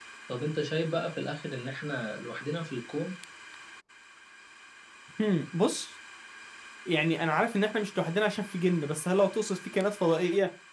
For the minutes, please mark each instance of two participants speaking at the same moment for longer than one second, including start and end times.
none

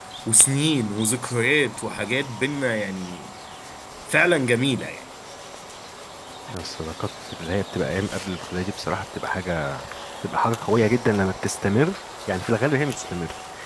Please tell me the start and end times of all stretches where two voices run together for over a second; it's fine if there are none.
none

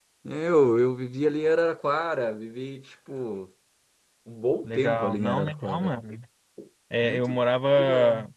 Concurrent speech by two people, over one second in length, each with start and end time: 4.6-5.9

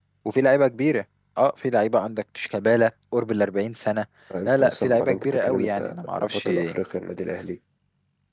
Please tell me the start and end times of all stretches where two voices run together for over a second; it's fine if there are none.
4.4-6.5

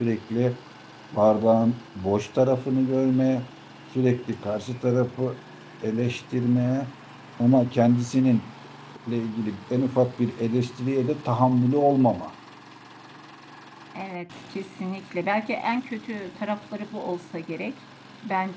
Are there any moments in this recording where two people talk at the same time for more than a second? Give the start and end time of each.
none

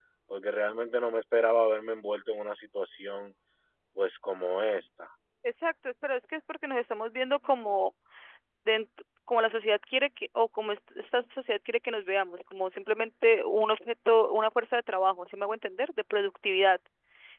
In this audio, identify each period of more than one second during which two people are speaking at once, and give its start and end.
none

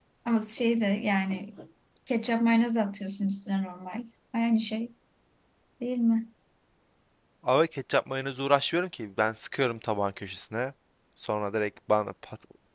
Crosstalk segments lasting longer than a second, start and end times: none

